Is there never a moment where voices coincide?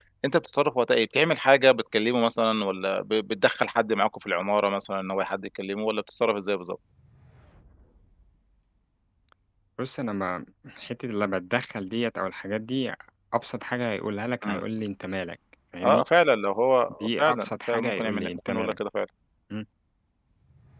No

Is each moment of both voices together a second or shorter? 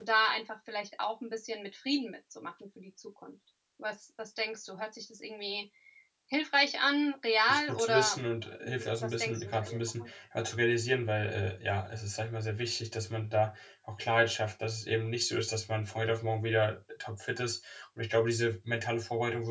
No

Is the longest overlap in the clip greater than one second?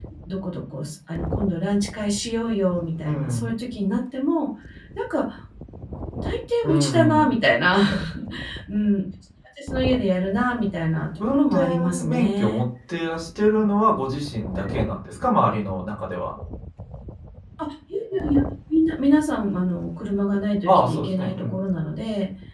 Yes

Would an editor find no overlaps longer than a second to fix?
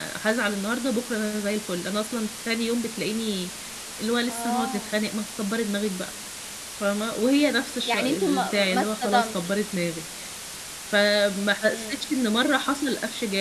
No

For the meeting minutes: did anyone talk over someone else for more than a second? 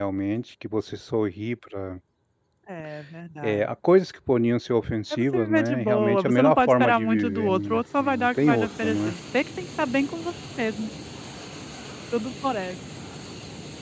Yes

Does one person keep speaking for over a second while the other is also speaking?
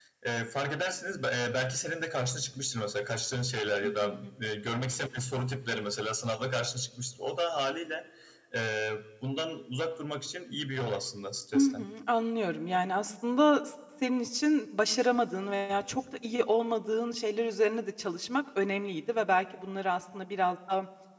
No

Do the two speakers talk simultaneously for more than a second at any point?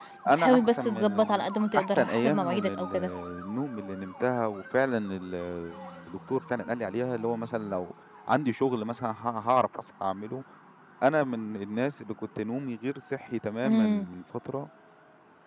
Yes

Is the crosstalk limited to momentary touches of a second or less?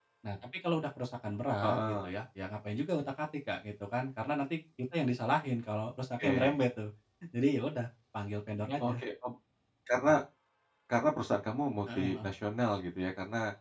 Yes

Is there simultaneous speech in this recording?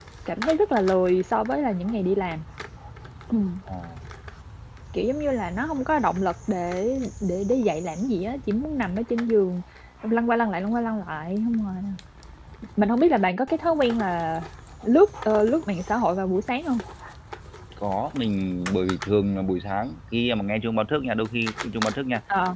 No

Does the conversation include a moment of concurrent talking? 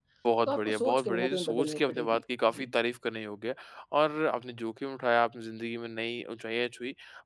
Yes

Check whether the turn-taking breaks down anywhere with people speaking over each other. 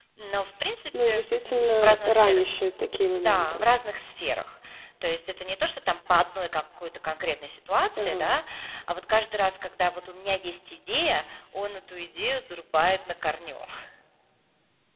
Yes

